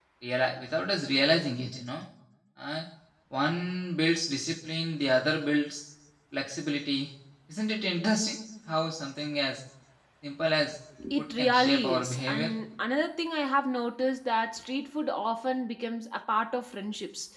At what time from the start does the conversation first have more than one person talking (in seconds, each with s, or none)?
11.0 s